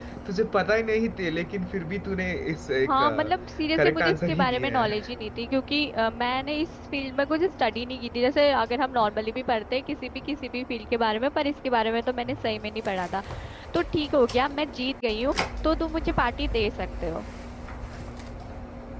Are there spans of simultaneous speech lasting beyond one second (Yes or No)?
Yes